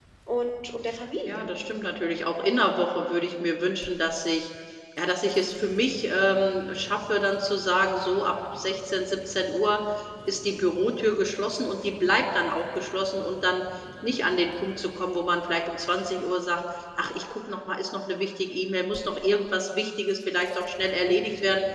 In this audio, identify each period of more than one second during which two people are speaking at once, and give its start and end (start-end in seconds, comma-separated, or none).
none